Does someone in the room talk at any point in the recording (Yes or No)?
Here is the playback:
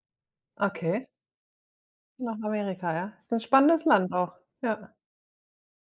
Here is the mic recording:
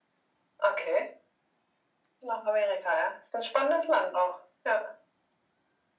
No